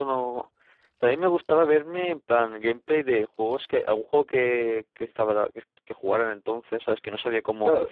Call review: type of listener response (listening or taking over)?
taking over